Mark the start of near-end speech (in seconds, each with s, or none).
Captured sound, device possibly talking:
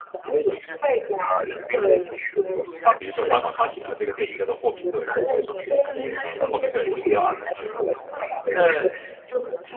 2.8 s